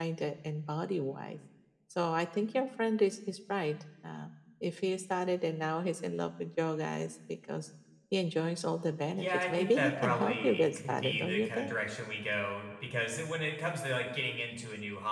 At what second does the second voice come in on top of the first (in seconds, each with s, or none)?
9.1 s